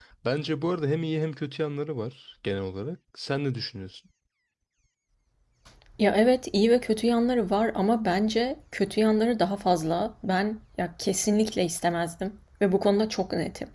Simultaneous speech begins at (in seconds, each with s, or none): none